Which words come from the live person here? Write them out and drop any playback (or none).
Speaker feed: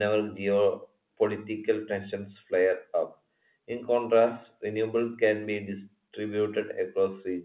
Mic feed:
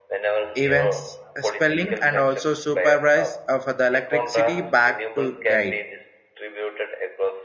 events uh, spelling and also supervise of the electricity back to guide